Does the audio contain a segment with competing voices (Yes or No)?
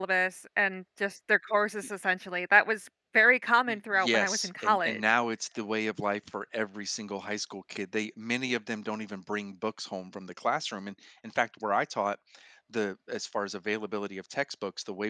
Yes